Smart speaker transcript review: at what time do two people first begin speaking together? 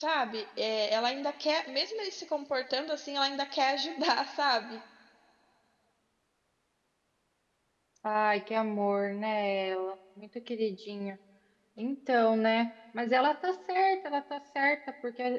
none

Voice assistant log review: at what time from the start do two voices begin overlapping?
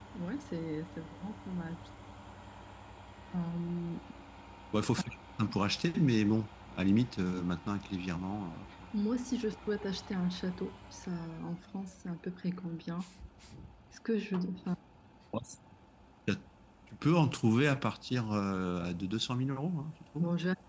none

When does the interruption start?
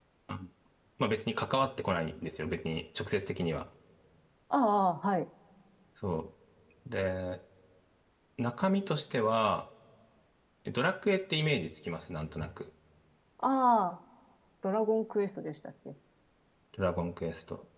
none

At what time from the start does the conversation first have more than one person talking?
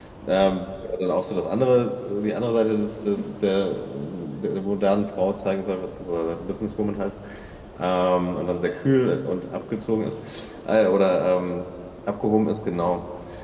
none

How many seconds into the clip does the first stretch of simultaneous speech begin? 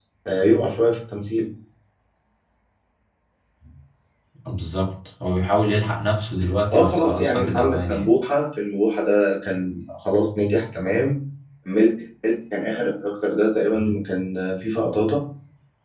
7 s

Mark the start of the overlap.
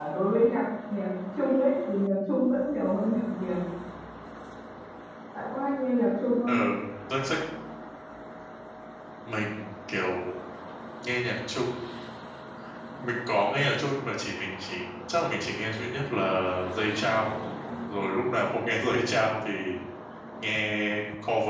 none

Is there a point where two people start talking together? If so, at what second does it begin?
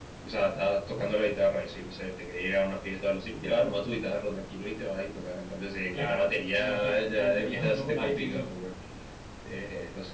6 s

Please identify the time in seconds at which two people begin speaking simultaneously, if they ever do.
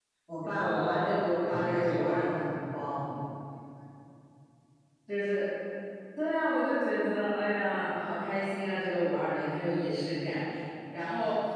1 s

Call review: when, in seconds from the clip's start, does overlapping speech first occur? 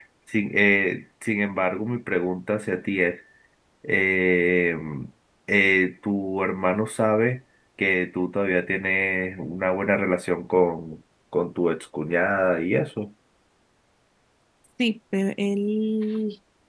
none

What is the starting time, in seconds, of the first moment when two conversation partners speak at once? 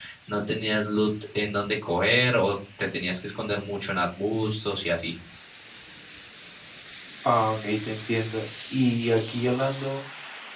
none

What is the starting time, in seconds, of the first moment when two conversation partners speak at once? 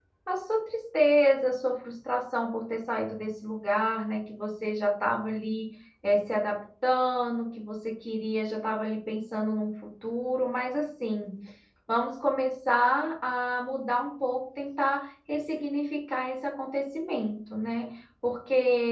none

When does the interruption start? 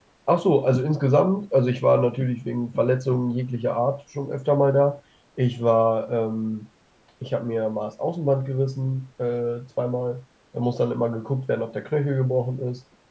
none

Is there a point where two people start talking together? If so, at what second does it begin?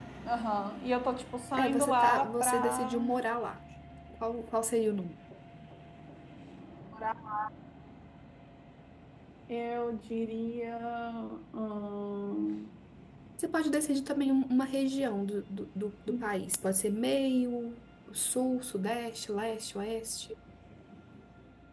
2 s

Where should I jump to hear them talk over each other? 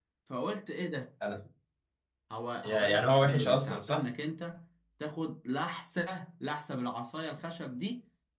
3 s

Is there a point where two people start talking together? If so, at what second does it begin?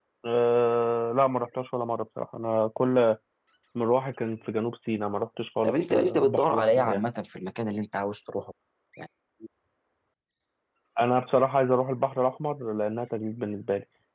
6 s

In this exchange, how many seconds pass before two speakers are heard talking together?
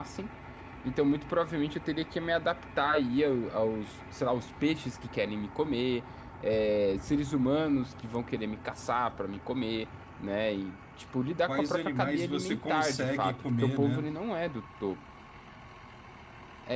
11 s

